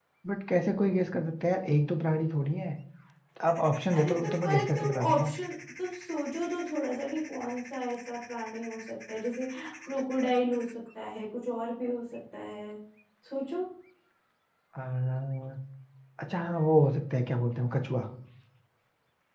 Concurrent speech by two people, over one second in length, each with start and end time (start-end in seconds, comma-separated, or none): 3.9-5.3